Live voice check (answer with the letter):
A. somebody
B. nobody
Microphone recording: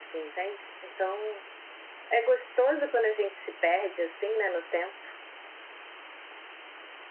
B